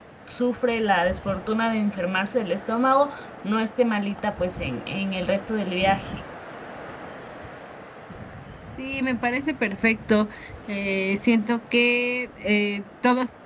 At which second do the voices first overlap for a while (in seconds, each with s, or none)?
none